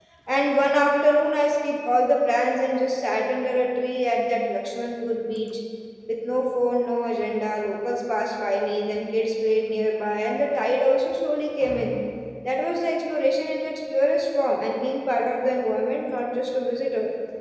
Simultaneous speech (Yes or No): No